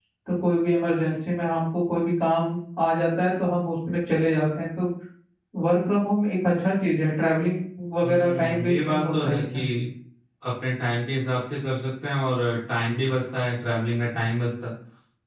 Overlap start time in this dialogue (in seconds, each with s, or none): 8.0 s